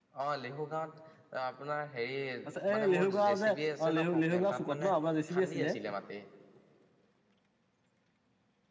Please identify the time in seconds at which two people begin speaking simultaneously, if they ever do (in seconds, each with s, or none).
2.8 s